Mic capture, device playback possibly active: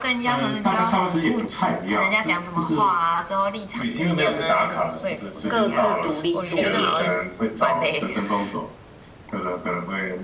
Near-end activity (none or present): present